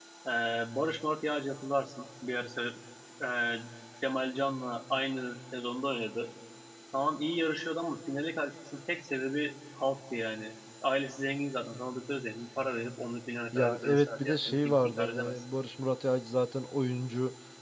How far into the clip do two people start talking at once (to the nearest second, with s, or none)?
14 s